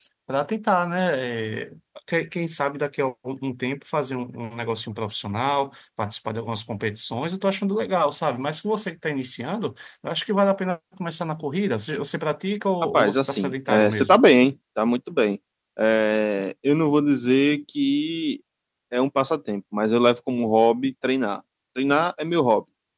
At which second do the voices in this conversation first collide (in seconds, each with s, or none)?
12.9 s